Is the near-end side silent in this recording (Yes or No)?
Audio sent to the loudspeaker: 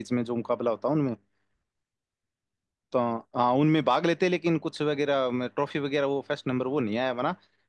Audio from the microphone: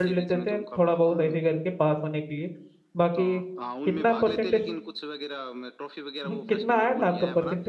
No